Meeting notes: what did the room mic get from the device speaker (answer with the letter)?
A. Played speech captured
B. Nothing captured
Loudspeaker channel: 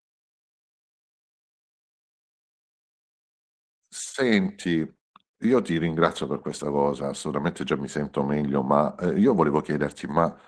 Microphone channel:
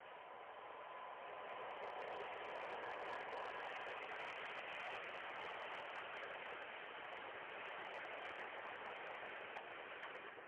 B